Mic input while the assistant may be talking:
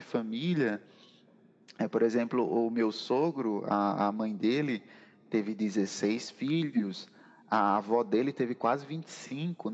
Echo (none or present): present